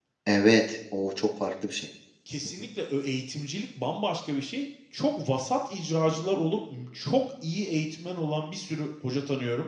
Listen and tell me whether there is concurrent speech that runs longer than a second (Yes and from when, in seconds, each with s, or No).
No